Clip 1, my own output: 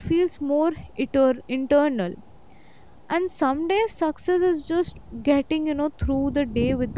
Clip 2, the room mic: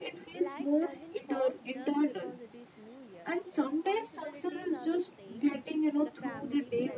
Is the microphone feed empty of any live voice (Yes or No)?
No